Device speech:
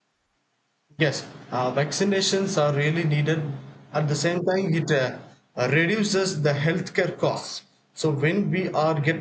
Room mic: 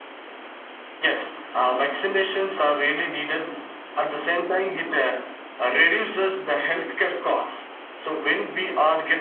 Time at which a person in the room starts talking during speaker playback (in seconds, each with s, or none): none